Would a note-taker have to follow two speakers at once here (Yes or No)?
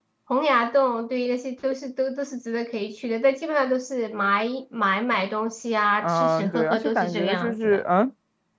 Yes